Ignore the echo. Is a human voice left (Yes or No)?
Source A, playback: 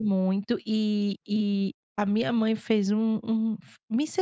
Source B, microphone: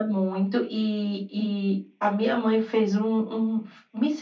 No